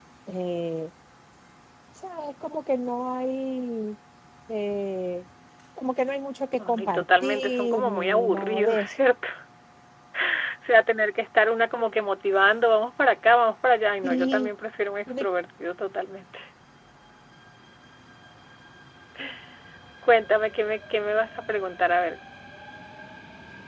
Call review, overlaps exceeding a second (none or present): present